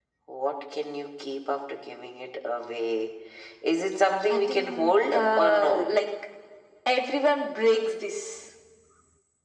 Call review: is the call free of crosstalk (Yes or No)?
No